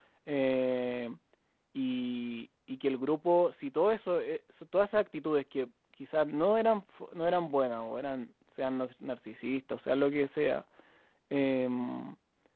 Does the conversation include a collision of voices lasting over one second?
No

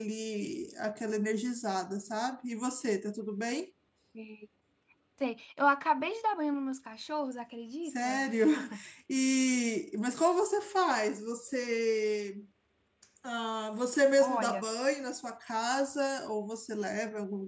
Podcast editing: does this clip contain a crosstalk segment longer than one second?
No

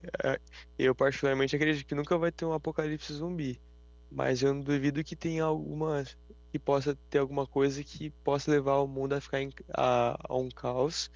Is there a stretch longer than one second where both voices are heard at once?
No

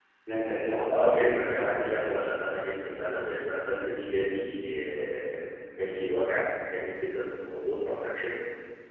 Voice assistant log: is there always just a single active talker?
No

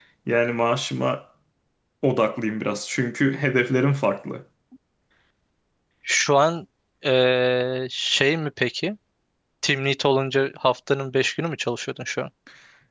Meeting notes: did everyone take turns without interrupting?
Yes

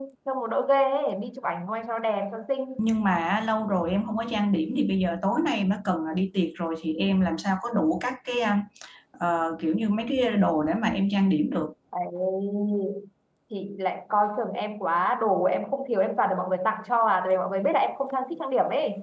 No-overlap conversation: Yes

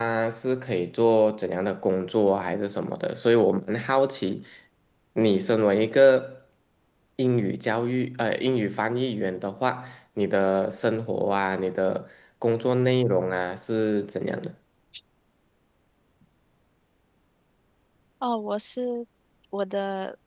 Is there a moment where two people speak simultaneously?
No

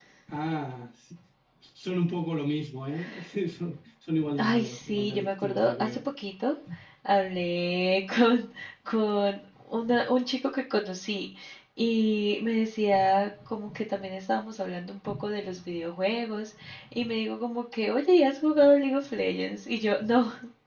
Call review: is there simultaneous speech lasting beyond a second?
Yes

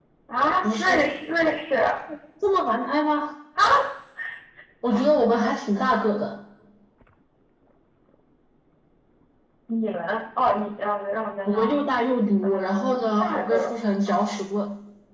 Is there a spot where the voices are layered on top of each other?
Yes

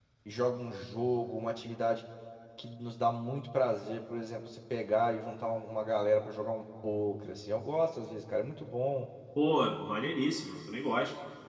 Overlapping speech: No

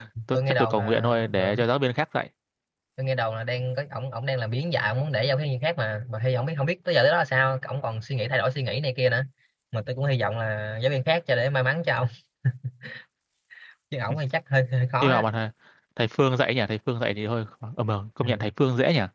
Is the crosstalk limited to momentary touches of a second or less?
No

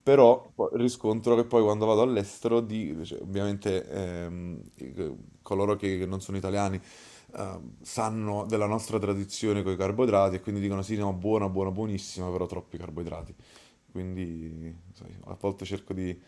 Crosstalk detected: No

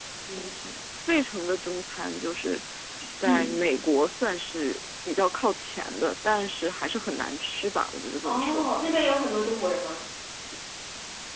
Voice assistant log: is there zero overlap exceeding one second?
Yes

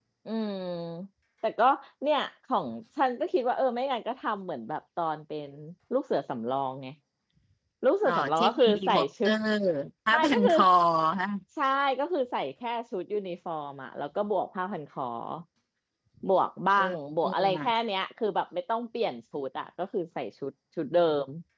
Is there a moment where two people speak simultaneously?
Yes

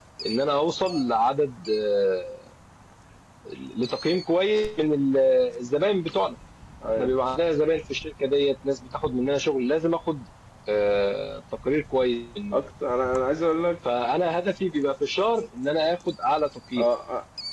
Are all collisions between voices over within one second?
Yes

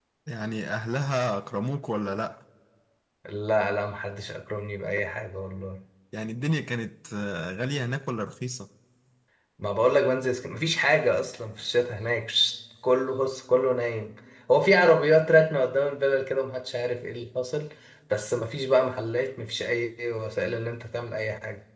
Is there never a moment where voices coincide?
Yes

